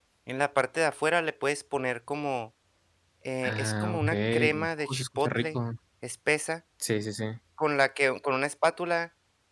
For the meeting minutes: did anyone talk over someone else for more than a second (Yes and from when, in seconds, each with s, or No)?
Yes, from 3.4 s